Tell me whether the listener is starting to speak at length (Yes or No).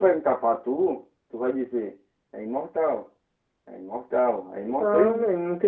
Yes